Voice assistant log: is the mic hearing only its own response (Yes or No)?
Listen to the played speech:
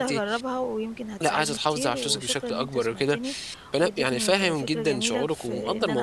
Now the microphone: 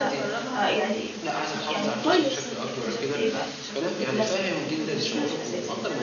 No